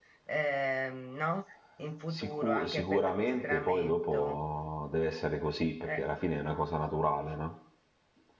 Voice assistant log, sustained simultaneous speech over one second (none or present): present